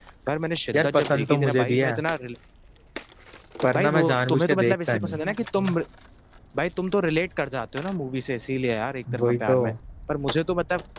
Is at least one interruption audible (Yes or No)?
Yes